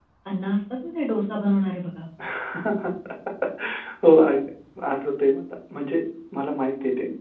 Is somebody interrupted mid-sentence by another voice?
No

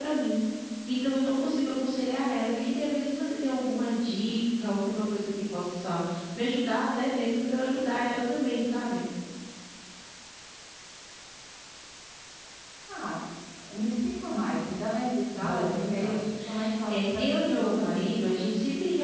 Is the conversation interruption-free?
No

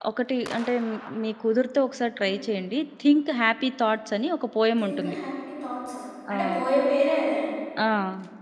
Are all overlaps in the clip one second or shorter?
Yes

